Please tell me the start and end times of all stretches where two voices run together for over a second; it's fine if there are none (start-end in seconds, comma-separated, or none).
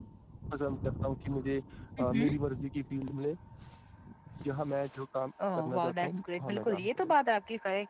5.6-7.1